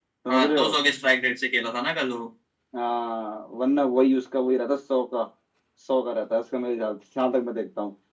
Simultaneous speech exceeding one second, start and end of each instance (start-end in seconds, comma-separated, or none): none